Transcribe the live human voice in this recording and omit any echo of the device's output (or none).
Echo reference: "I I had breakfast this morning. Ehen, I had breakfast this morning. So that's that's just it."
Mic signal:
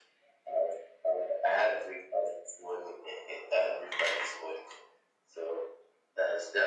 none